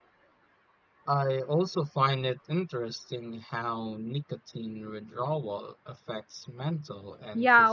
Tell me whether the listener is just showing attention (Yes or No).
No